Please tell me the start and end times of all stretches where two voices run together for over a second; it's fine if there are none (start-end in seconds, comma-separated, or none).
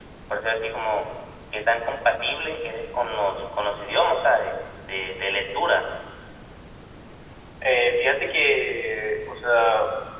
none